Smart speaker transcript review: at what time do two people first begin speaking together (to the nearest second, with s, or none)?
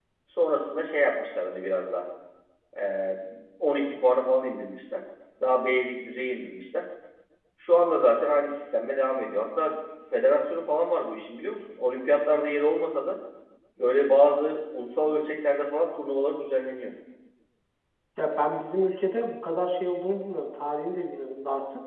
none